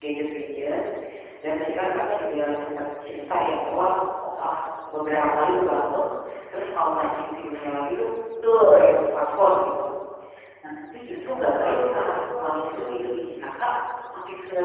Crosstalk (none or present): present